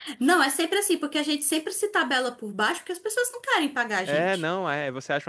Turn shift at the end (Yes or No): Yes